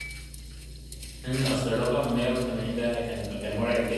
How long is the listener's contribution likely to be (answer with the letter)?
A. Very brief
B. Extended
B